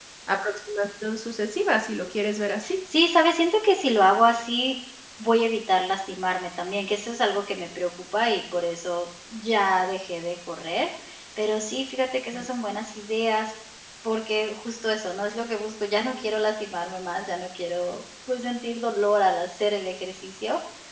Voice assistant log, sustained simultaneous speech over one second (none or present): none